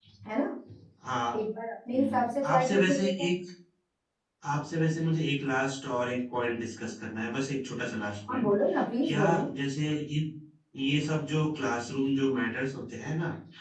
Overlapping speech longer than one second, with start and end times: 1.9-3.3

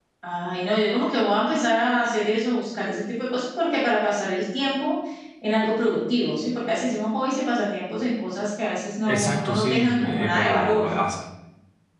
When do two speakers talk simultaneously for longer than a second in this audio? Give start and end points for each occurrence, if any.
9.1-10.9

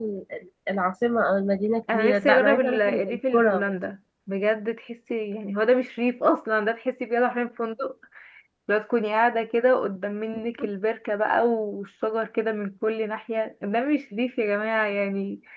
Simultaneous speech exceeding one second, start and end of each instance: 1.9-3.6

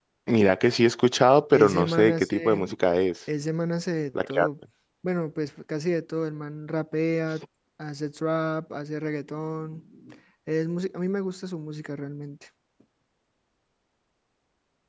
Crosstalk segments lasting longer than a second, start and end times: 1.5-2.7

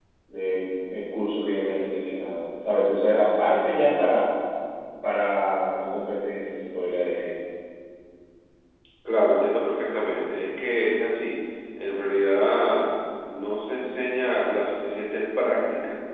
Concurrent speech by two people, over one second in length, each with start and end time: none

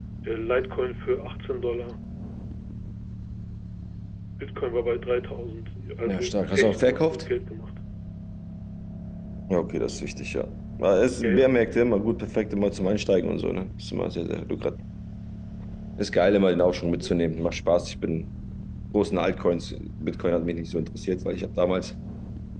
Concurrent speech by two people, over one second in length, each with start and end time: 6.1-7.3

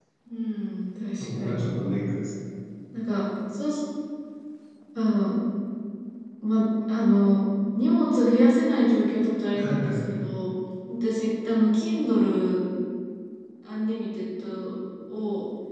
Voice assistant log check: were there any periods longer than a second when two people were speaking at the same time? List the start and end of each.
none

